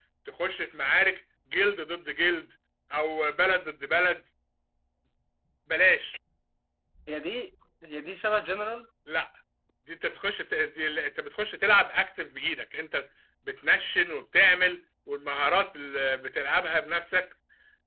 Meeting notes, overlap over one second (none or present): none